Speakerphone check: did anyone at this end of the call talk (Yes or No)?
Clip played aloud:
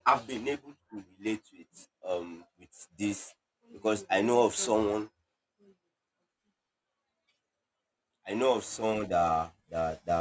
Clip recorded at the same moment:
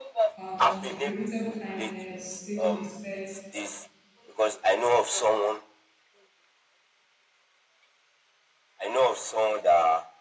Yes